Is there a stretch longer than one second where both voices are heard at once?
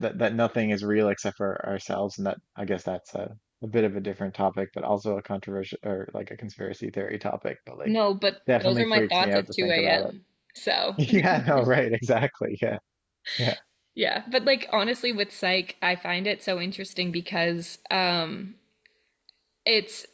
Yes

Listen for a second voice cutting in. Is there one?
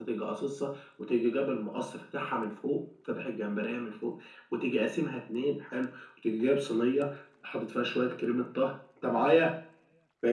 No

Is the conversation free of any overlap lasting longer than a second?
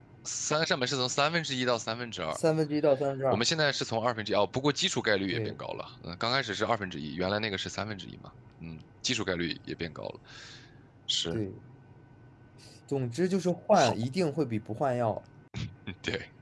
Yes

